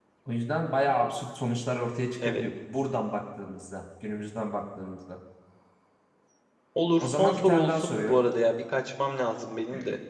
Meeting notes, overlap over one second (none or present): present